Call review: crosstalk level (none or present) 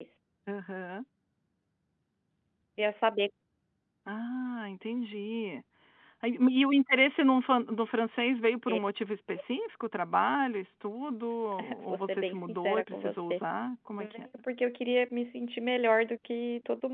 present